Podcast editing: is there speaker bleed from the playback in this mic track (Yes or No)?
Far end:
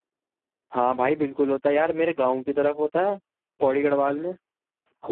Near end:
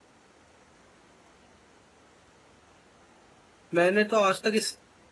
No